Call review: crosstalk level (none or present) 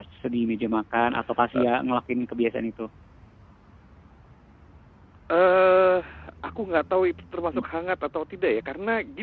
none